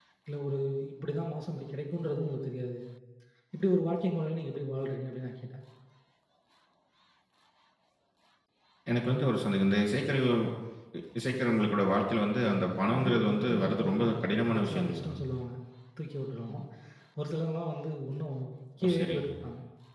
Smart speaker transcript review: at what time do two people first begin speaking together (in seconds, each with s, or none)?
12.9 s